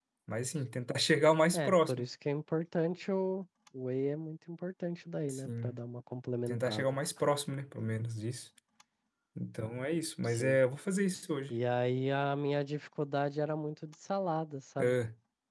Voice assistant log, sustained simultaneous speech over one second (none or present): none